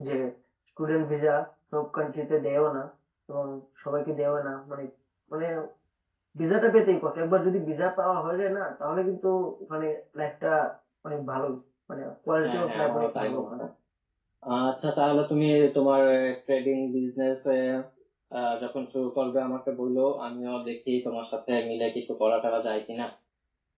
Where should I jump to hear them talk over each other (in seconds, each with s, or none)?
12.4 s